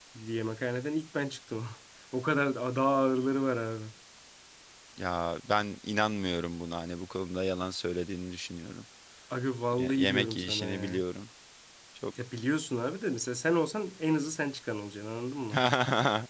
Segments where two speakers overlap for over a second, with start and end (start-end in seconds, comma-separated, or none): 9.8-11.0